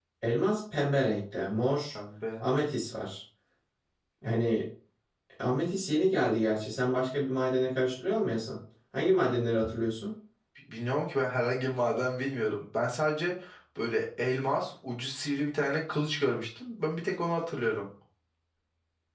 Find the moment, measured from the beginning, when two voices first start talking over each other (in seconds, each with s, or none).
none